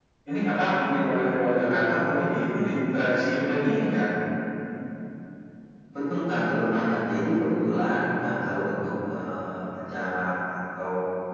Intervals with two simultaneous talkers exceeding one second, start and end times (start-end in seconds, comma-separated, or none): none